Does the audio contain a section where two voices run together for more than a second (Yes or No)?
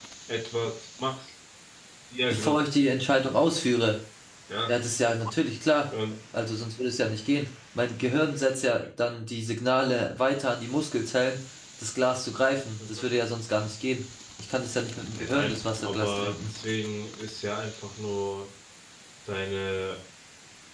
Yes